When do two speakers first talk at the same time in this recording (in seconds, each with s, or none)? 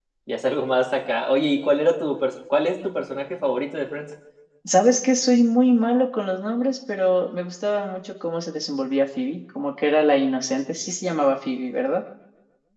none